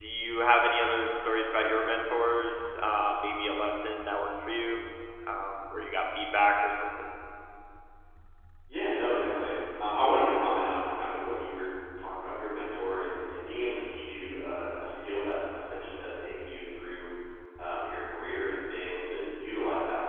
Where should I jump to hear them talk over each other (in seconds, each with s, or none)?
none